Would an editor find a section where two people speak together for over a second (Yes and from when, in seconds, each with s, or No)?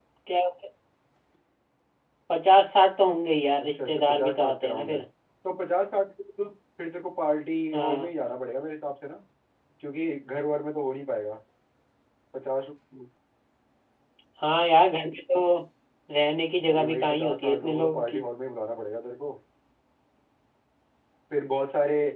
Yes, from 3.6 s